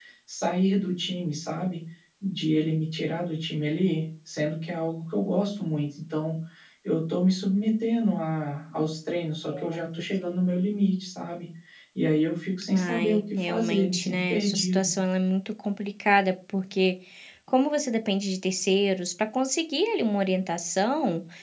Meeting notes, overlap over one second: present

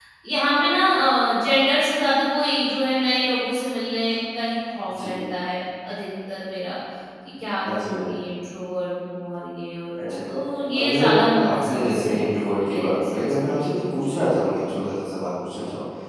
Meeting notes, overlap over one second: present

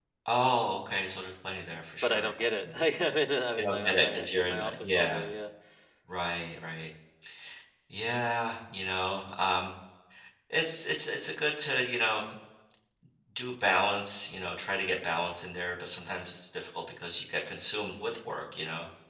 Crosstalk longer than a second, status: present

